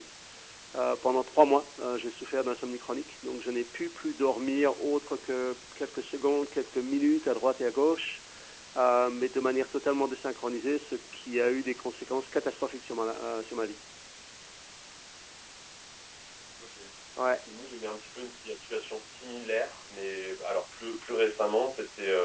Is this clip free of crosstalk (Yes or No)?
Yes